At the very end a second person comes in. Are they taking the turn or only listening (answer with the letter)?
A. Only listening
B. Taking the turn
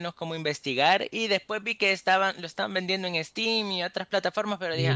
B